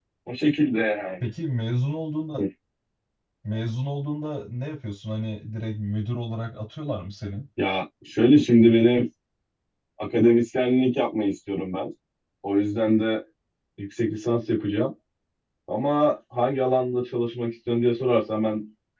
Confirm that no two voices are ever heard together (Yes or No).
Yes